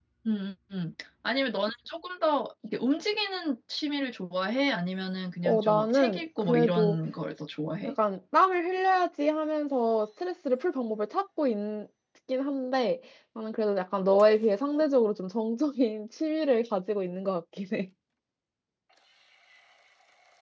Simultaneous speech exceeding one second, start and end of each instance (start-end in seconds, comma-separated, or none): 5.4-7.0